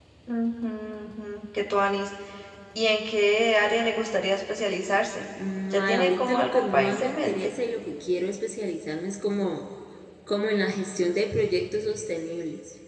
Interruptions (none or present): present